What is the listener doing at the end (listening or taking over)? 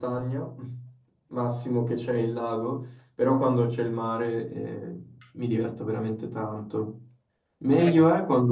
listening